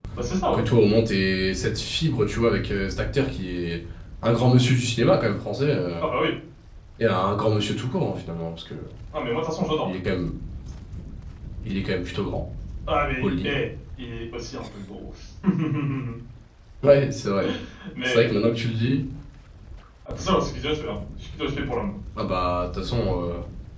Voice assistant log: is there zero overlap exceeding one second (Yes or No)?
Yes